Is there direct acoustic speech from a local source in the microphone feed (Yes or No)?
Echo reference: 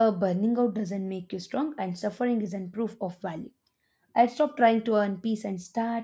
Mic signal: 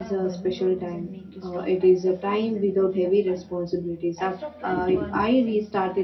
Yes